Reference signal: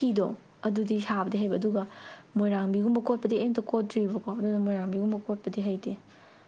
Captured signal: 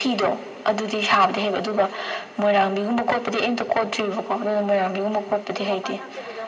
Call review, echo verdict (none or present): present